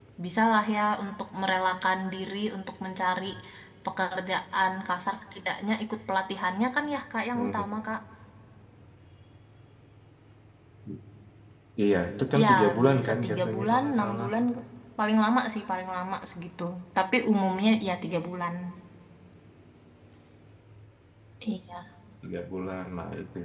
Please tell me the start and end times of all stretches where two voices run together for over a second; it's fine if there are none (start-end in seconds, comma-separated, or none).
12.4-14.3